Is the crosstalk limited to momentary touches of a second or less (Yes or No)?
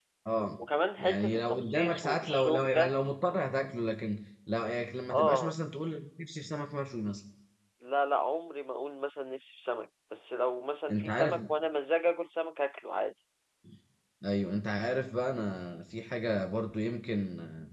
No